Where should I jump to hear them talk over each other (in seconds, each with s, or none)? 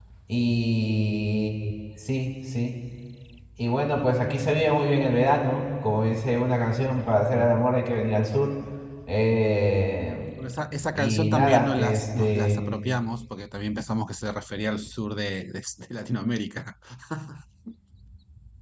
10.9 s